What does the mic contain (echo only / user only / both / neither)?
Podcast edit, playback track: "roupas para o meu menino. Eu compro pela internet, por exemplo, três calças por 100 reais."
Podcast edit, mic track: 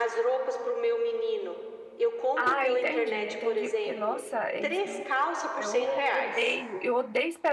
both